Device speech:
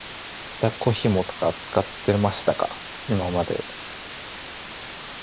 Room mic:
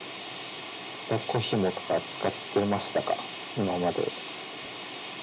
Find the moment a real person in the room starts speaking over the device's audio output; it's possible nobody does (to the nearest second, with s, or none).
none